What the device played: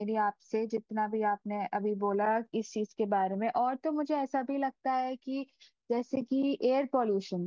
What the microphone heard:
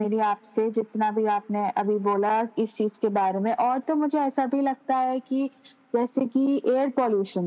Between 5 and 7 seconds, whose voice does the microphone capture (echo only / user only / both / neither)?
echo only